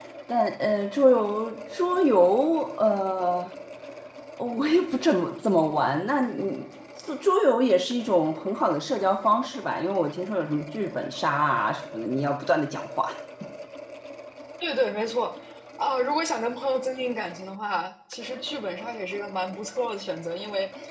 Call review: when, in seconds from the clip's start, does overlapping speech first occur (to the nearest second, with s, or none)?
none